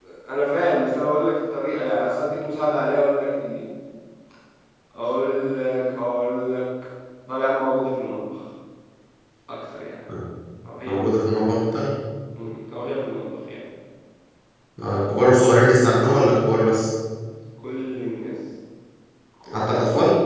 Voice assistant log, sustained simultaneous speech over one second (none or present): none